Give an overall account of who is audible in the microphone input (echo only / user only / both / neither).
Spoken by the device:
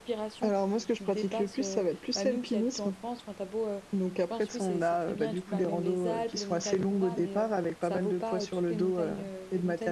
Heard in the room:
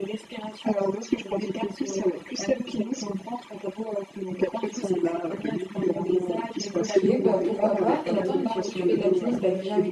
both